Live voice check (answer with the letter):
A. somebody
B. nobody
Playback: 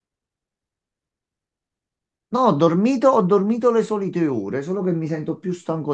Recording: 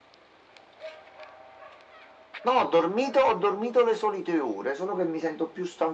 B